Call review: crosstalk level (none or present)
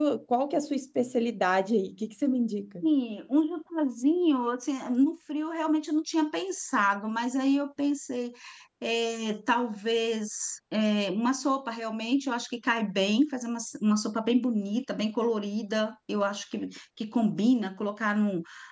none